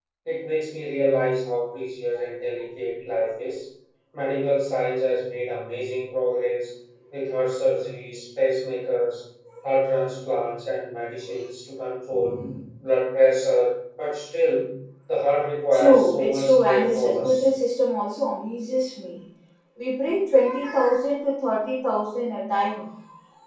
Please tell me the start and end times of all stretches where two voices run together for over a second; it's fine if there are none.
15.7-17.5

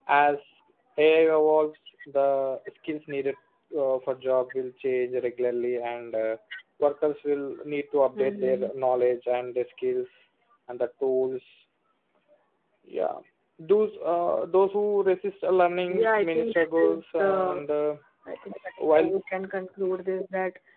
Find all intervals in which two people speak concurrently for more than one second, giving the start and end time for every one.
15.9-17.6

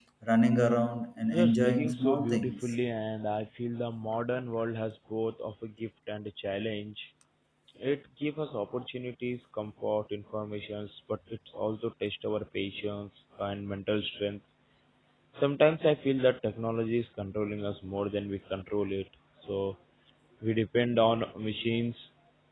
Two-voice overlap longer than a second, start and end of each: 1.3-2.5

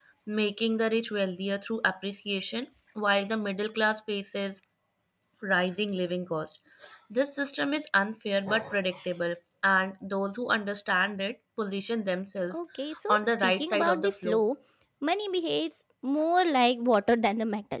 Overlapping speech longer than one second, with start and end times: 13.1-14.4

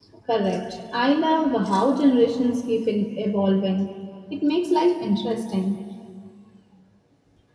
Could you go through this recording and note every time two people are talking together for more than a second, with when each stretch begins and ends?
none

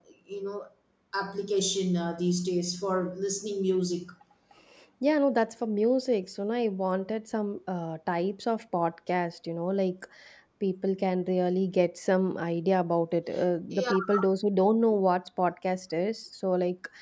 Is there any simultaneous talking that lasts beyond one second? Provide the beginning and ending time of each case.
none

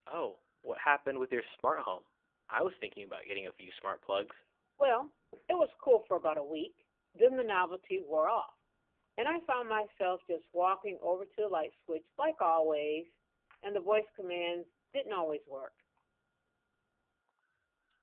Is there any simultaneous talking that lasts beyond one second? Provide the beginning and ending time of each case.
none

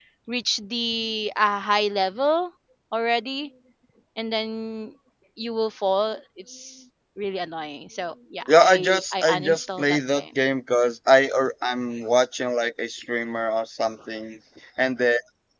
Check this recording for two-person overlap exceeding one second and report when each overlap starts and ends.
8.5-10.2

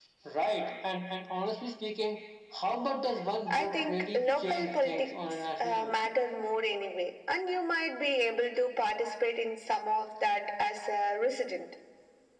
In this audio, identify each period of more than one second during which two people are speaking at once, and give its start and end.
3.5-5.9

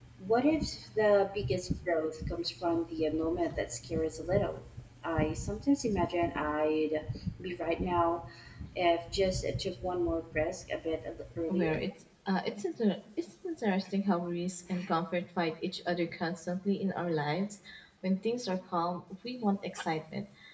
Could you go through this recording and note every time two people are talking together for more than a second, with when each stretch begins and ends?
none

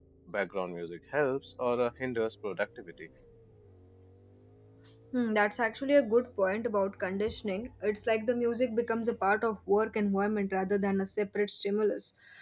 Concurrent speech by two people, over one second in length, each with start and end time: none

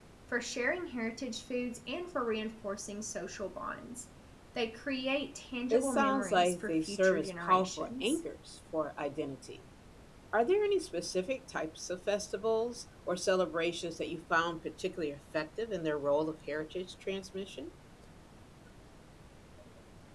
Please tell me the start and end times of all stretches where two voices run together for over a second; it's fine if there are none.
5.7-8.2

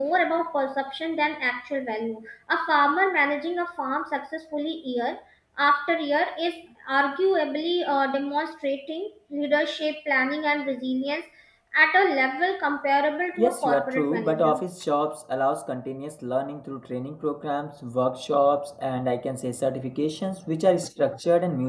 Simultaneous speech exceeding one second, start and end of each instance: 13.4-14.6

